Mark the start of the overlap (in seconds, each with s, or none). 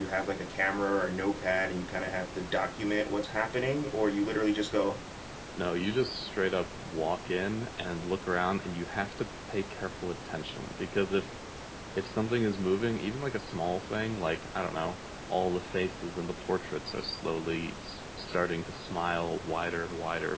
none